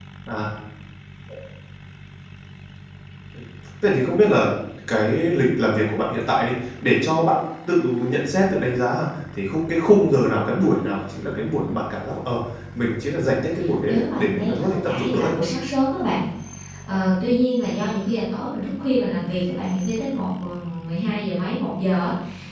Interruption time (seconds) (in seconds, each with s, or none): 13.8 s